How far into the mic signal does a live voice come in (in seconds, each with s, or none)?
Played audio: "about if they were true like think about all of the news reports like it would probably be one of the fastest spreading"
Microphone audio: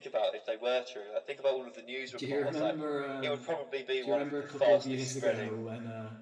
2.1 s